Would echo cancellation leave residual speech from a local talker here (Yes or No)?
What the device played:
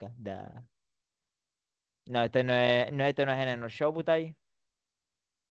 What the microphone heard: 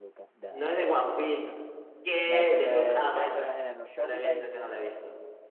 Yes